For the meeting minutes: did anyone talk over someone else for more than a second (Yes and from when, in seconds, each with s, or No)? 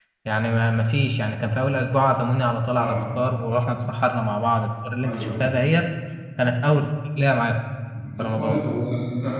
No